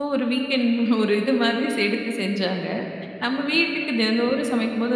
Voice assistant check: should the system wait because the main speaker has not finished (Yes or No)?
Yes